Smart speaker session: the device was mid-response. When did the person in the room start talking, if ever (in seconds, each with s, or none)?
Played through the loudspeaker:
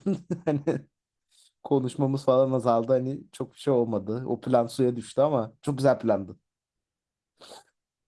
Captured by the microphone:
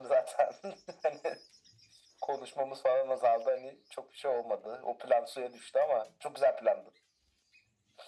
none